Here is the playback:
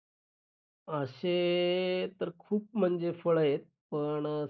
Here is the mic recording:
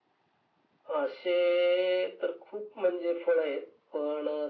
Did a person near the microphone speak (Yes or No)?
No